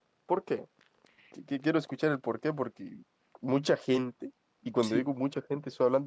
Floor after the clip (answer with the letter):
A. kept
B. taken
A